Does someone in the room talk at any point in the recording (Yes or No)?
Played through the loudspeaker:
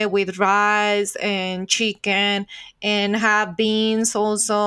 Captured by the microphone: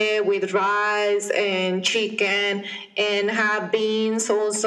No